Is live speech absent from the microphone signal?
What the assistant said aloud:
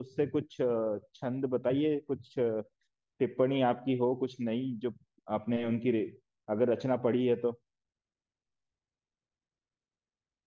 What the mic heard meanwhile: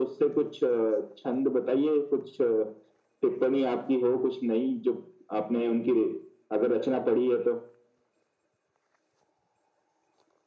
Yes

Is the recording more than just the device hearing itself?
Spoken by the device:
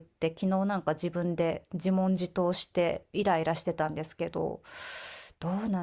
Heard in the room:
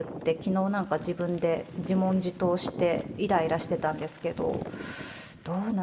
No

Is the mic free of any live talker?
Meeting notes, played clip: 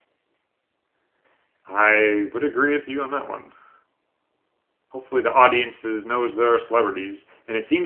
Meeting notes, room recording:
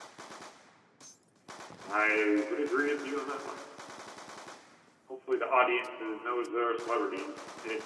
Yes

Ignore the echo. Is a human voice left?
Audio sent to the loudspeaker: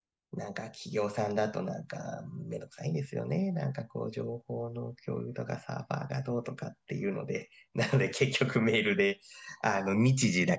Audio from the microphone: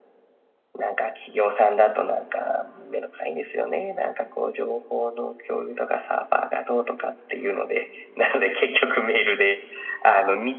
No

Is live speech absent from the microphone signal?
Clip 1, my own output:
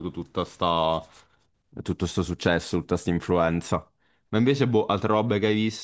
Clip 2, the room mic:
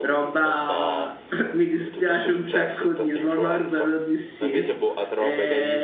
No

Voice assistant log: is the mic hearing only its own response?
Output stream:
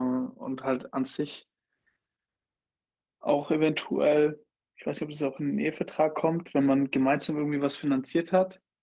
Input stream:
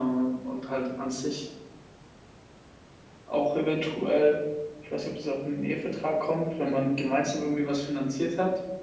Yes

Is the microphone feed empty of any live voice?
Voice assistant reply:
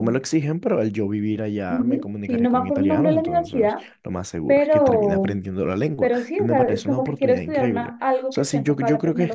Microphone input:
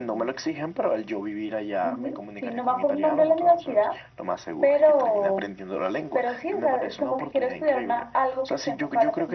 Yes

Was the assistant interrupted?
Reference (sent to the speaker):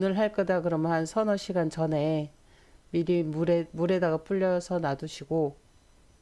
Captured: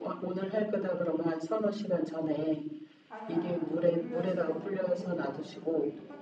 Yes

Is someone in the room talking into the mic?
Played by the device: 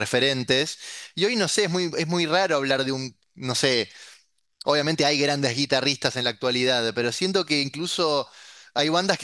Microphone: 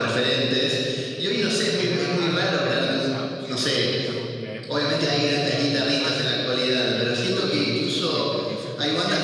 Yes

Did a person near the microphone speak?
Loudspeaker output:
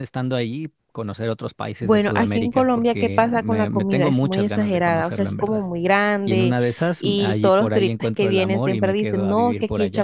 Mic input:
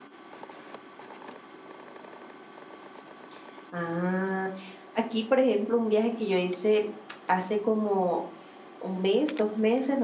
Yes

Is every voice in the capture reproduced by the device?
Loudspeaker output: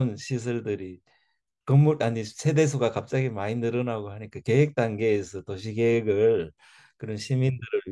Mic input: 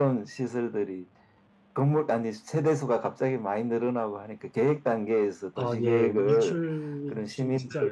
No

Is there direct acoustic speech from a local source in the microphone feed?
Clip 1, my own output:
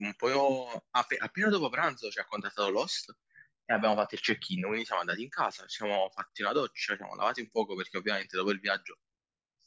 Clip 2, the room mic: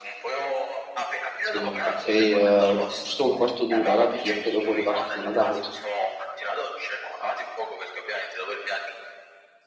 Yes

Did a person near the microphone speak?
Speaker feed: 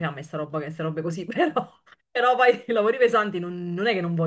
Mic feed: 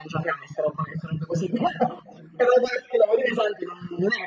No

